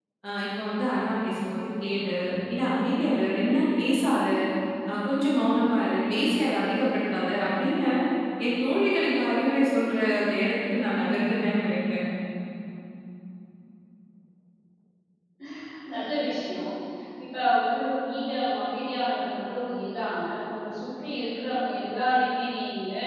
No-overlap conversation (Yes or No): Yes